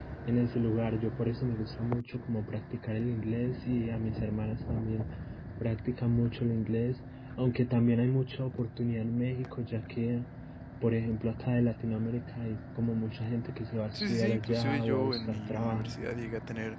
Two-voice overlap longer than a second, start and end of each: 13.9-15.9

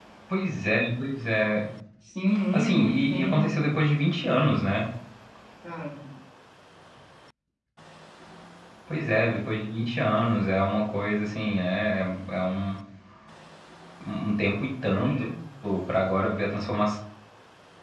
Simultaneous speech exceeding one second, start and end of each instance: 2.5-3.8

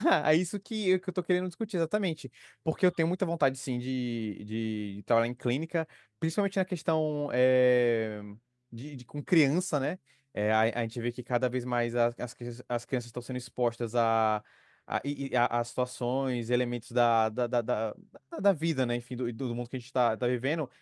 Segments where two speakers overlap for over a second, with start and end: none

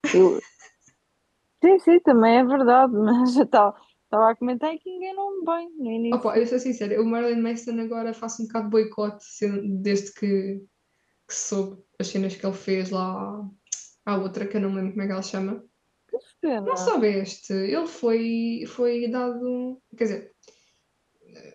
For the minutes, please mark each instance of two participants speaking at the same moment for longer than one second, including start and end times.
none

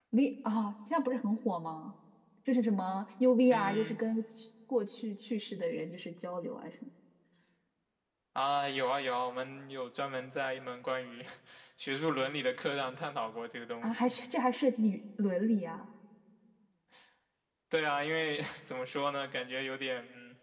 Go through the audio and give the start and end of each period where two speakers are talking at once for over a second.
none

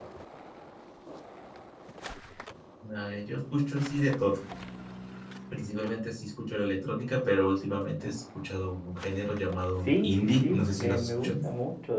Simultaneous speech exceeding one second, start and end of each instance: 9.8-11.3

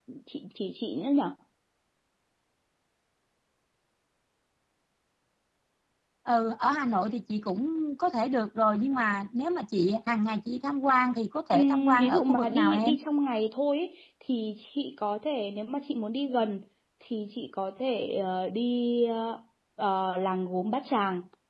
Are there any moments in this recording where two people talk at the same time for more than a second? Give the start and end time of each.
11.5-13.0

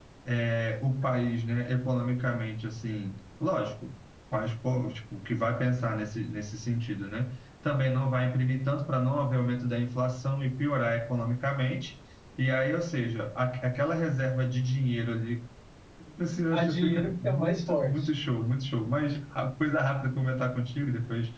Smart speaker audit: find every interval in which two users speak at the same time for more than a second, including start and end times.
16.5-18.0

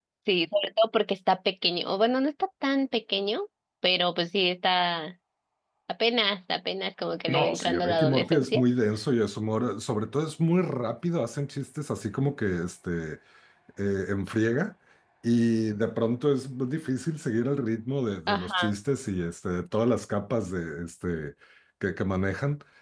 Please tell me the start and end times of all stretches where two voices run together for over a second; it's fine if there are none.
7.3-8.6

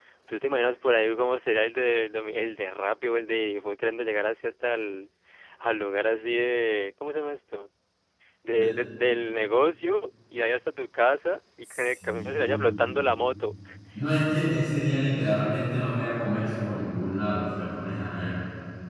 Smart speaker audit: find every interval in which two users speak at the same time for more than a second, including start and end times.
11.6-13.0

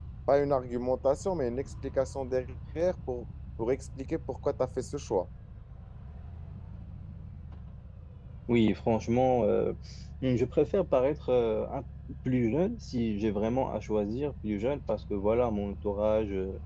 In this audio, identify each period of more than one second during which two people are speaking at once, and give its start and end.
none

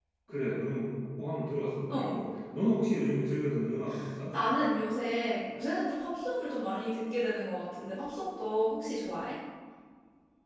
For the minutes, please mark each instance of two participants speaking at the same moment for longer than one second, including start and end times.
none

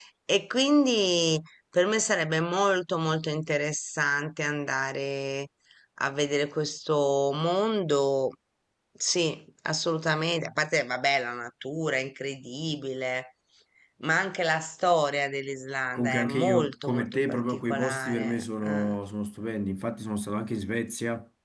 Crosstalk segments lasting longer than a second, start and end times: 15.9-18.9

